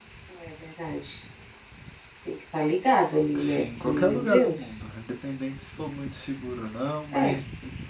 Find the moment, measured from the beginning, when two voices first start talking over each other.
3.4 s

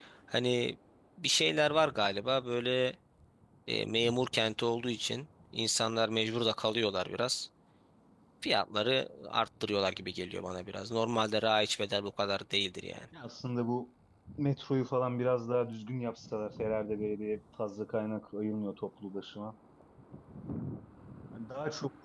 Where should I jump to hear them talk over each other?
none

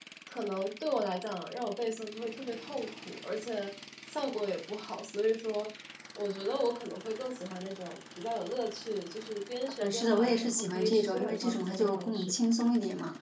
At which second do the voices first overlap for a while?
9.8 s

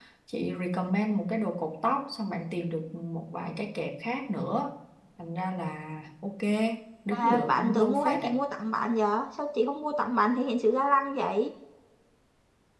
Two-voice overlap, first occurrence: 7.1 s

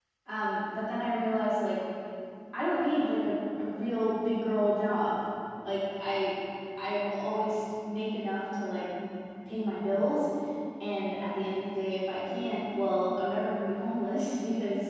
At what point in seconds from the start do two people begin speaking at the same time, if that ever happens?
none

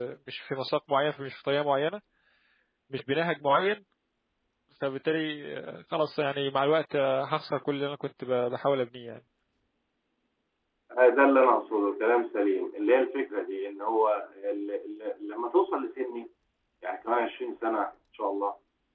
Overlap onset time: none

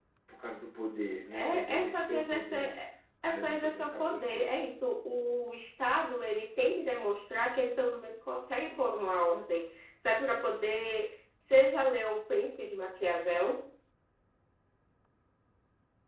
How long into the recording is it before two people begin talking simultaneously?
1.3 s

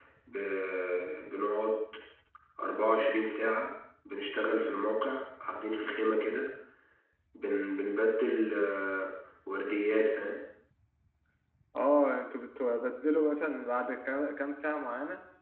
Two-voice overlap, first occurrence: none

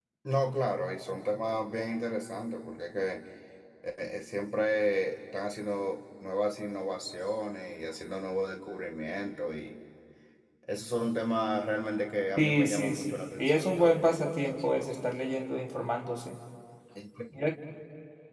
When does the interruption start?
12.4 s

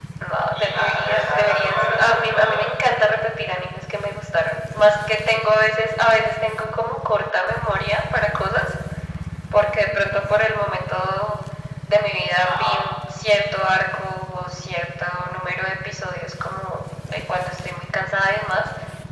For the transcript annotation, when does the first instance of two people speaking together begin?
0.5 s

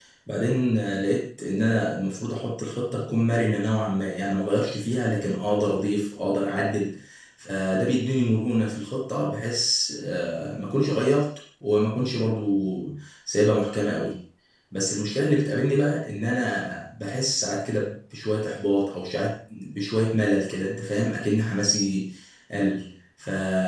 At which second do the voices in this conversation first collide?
none

